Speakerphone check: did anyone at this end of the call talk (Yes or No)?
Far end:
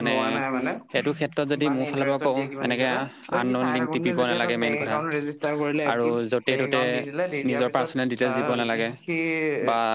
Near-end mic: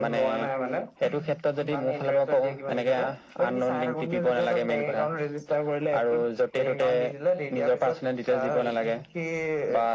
No